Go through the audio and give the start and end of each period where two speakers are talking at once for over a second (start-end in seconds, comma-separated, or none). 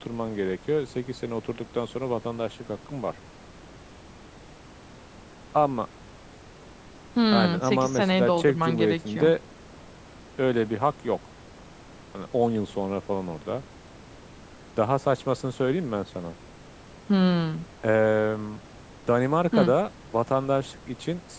7.3-9.3